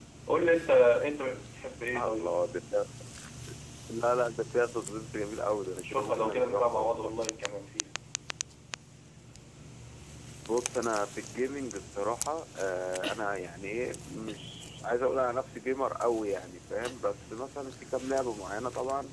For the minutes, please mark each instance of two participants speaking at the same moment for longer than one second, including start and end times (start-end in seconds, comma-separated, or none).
5.8-7.1